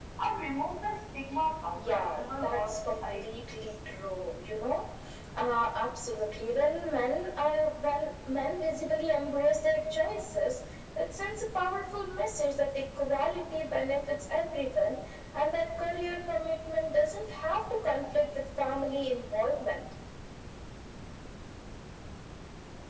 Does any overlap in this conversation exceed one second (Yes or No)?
Yes